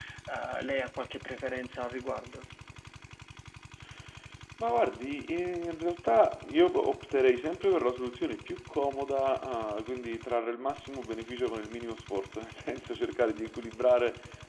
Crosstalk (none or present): none